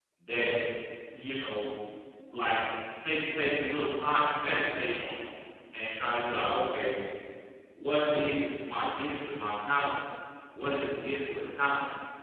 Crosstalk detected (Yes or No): No